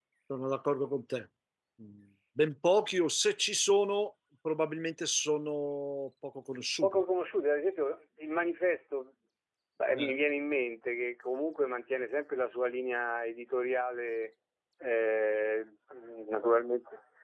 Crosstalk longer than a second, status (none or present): none